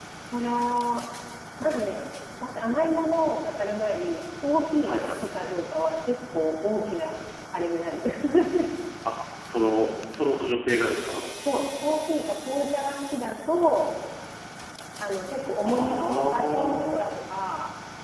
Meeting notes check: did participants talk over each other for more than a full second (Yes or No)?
Yes